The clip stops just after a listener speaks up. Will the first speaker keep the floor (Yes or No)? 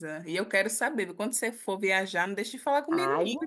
No